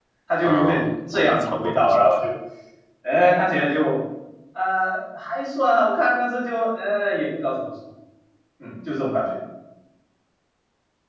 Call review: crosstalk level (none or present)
present